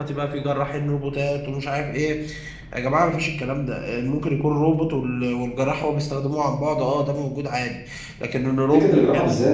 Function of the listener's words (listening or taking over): taking over